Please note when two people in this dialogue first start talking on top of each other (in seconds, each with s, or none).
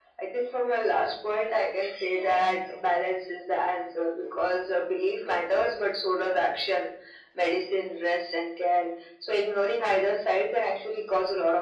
none